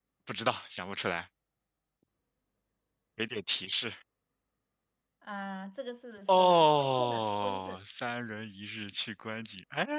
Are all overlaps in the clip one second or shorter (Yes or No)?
No